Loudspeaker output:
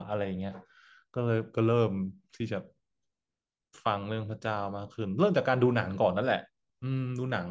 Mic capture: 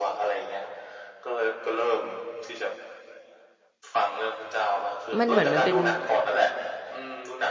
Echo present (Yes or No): Yes